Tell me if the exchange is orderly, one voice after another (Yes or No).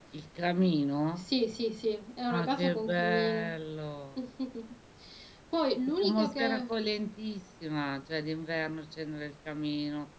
No